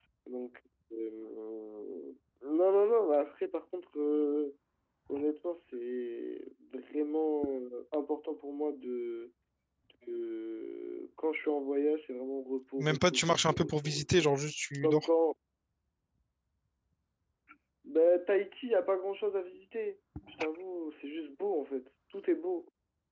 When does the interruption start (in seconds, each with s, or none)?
12.8 s